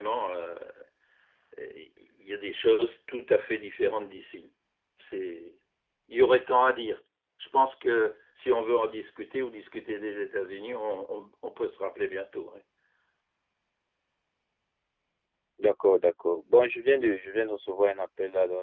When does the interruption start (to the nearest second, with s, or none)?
none